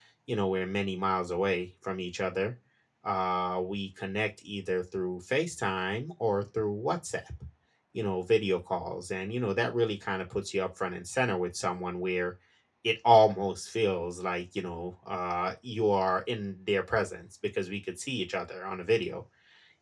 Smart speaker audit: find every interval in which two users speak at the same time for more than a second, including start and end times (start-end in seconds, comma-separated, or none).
none